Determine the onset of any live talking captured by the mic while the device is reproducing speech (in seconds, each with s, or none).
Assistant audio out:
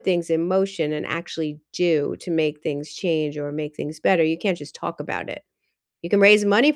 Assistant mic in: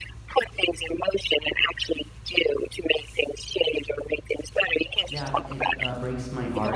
5.0 s